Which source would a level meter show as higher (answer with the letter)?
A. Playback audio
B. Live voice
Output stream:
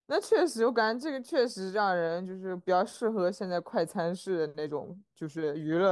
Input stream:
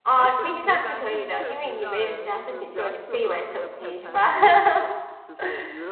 B